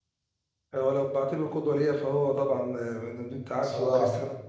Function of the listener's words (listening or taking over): listening